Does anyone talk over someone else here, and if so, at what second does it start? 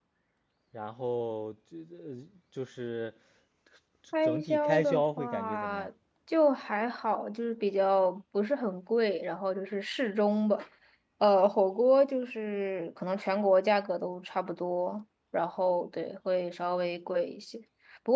4 s

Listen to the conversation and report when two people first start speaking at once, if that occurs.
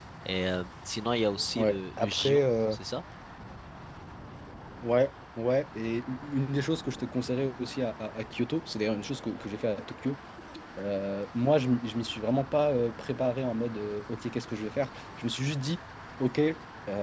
2 s

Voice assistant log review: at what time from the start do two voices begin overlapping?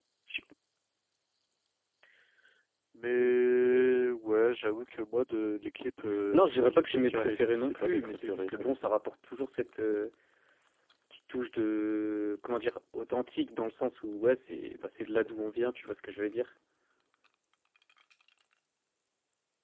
6 s

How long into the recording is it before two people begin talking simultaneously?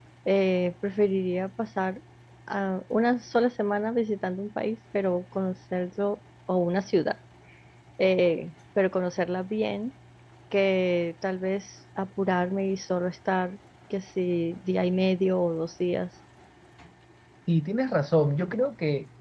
none

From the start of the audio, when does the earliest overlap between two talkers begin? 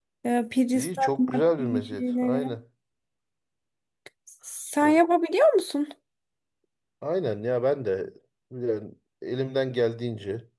1 s

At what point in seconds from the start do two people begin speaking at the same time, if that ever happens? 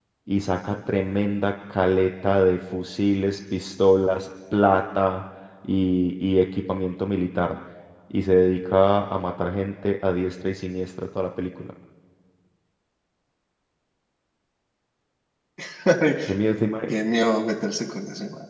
none

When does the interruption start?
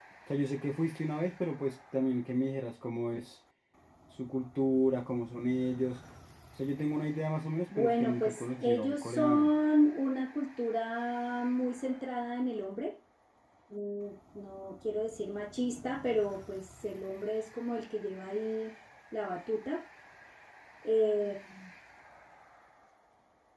8 s

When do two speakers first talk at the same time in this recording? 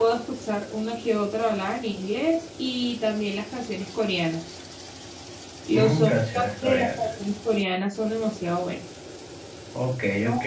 6 s

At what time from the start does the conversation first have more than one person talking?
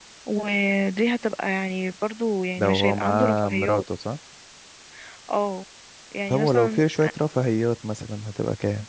3 s

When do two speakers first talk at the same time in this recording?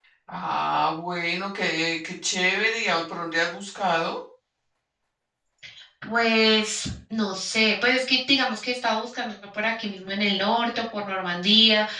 none

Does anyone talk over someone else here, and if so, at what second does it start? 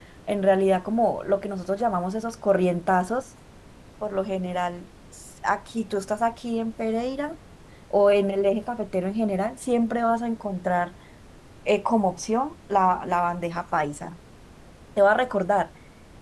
none

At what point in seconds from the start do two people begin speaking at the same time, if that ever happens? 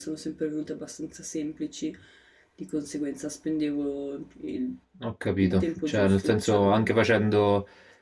5 s

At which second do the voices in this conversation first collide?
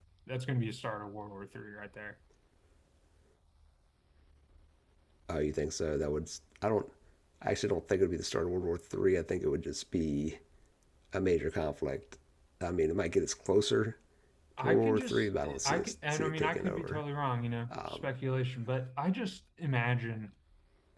15 s

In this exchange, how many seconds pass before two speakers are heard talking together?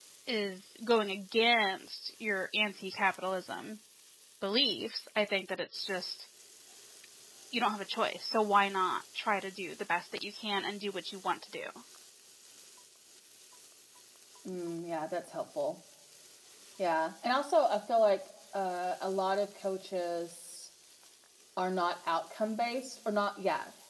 none

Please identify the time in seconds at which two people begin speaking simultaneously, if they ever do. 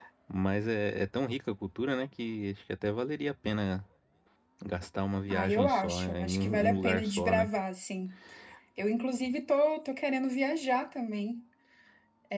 5 s

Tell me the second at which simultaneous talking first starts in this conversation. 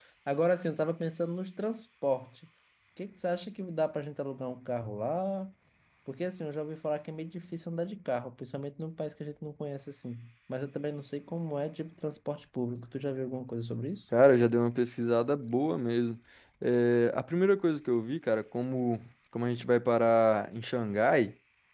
none

